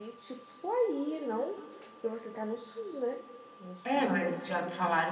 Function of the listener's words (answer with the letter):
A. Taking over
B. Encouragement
A